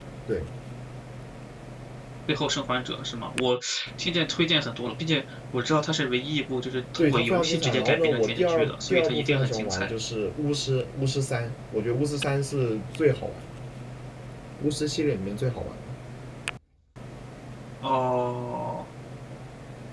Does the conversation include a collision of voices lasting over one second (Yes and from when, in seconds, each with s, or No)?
Yes, from 7.0 s